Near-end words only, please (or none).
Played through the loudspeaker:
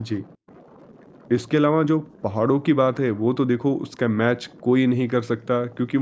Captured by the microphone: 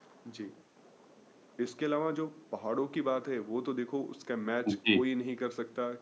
जी।